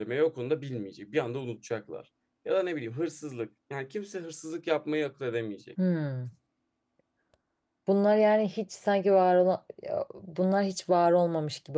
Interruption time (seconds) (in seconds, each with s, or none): none